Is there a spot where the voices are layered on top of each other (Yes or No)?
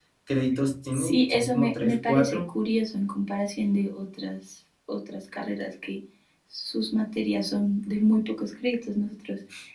Yes